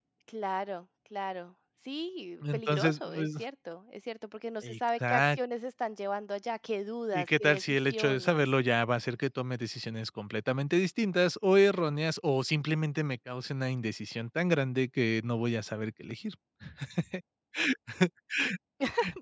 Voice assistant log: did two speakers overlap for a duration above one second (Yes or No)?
Yes